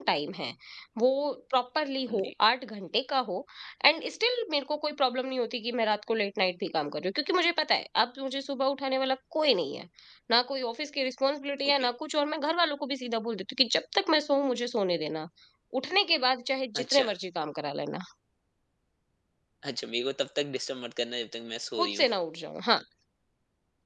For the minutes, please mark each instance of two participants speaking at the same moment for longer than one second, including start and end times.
none

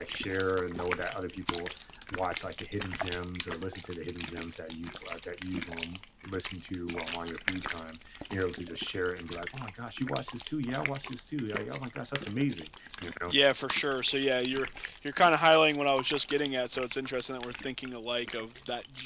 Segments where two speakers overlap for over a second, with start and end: none

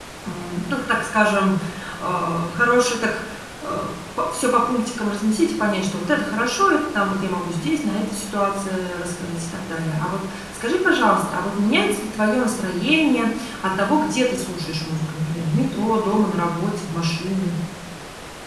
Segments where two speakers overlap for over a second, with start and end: none

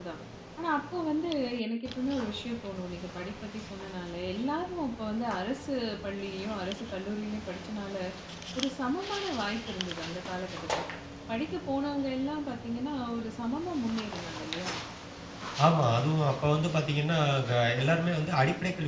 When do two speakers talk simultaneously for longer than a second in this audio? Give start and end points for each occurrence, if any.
none

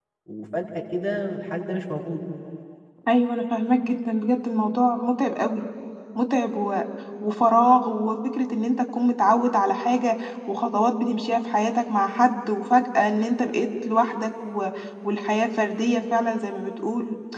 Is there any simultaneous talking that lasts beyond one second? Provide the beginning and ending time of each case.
none

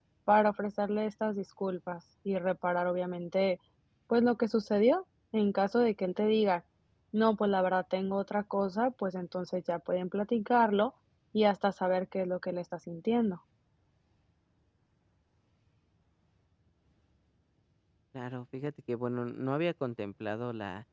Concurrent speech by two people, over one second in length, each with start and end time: none

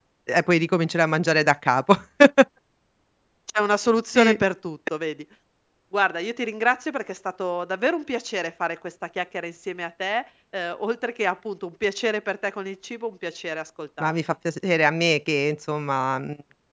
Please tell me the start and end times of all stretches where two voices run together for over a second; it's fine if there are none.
none

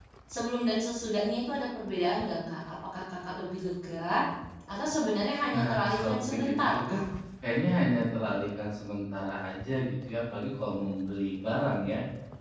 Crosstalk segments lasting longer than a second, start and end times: 5.5-7.0

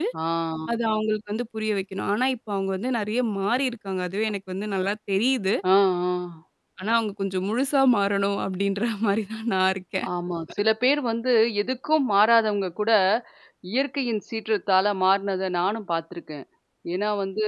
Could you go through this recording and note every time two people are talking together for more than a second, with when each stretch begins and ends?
none

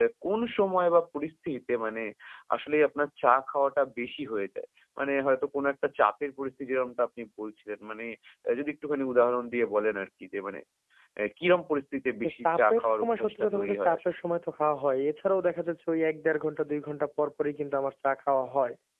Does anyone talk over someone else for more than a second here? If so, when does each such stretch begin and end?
12.2-14.0

